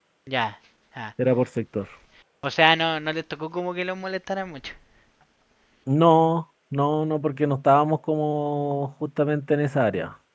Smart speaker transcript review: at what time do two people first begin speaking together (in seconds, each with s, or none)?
none